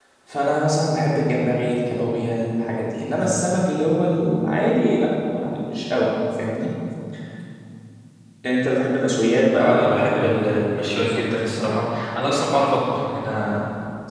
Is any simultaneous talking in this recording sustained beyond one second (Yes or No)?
Yes